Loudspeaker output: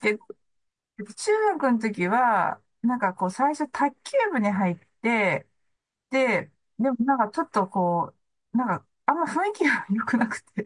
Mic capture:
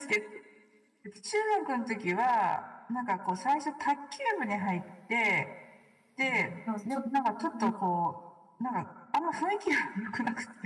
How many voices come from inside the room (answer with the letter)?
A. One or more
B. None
A